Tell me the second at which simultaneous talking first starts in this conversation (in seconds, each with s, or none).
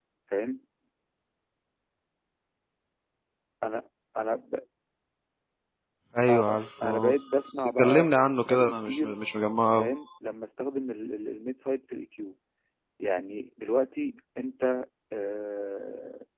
6.3 s